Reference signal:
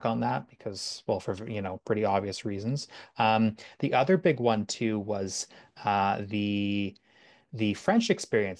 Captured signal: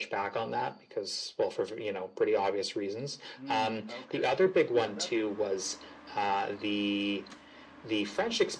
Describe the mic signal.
both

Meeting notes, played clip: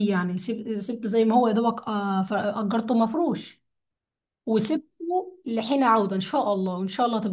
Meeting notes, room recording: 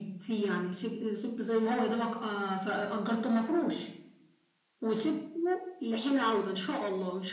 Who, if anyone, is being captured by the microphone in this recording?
echo only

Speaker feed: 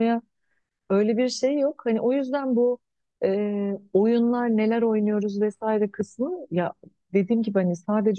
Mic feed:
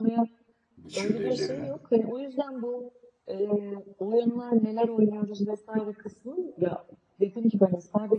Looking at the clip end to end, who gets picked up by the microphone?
both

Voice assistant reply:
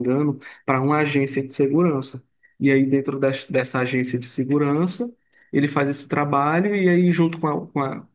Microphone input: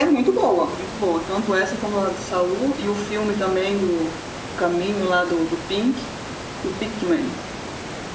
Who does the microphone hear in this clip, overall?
user only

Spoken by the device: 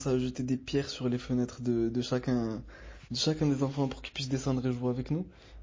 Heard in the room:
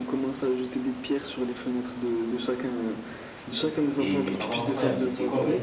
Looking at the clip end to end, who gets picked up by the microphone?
both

